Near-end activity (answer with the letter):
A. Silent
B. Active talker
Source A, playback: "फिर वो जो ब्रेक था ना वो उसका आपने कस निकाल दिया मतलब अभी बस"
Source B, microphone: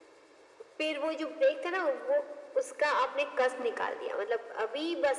A